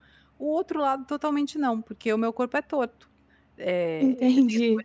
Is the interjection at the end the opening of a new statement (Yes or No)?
No